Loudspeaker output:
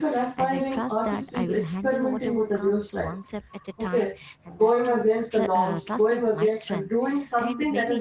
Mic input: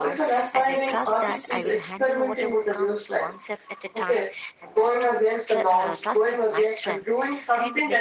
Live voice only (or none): none